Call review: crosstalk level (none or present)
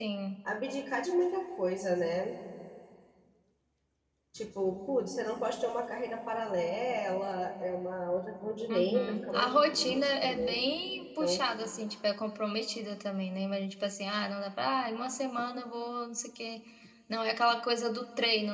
present